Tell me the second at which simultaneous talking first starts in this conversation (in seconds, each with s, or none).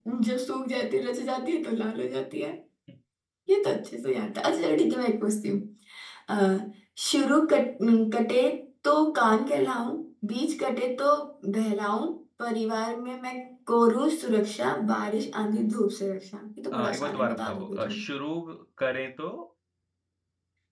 16.7 s